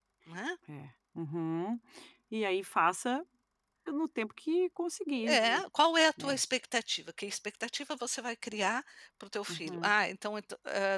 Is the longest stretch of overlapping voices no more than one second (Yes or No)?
Yes